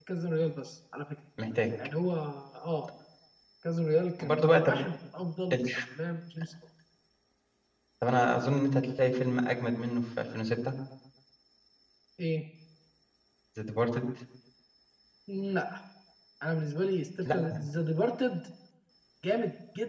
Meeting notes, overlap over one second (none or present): none